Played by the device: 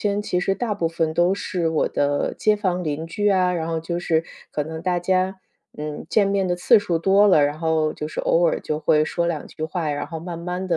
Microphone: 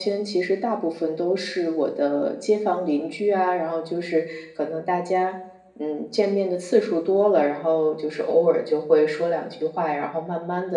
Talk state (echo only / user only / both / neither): echo only